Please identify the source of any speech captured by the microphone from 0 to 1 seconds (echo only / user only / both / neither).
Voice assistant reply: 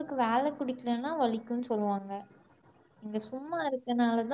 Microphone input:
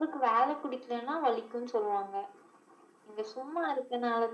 echo only